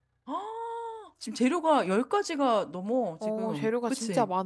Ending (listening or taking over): taking over